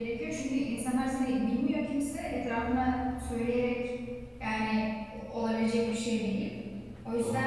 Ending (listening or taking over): listening